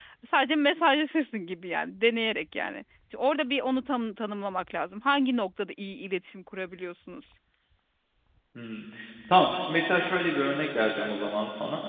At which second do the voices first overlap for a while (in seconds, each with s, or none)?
none